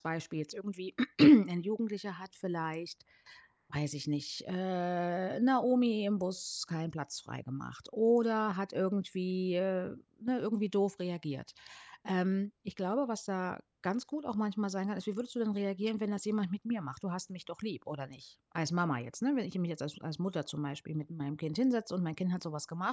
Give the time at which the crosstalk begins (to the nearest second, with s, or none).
none